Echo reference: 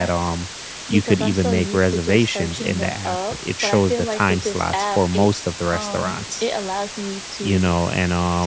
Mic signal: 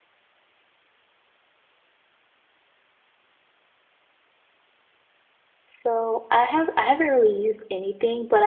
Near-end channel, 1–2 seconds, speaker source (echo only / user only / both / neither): neither